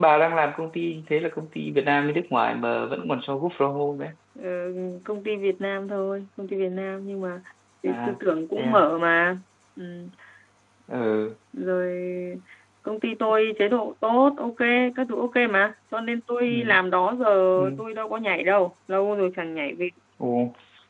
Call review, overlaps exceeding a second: none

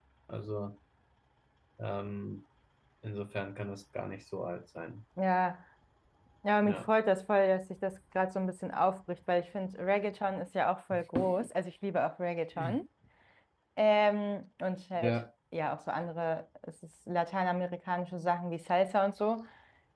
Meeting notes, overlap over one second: none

